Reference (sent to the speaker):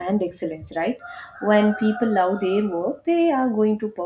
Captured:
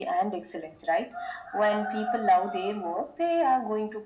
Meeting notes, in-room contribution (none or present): none